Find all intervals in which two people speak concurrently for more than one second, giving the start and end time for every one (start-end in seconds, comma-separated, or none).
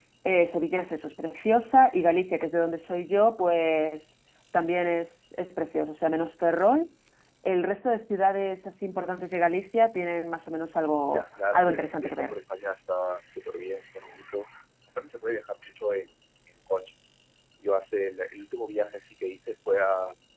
11.1-12.3